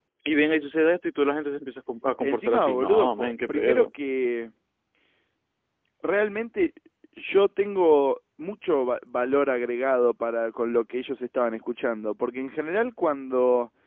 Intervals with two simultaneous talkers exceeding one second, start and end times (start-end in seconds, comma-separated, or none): 2.2-3.9